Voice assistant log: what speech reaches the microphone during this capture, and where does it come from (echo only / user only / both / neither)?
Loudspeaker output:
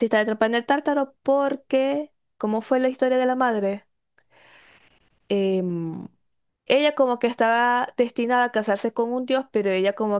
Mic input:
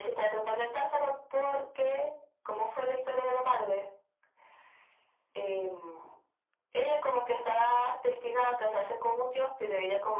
echo only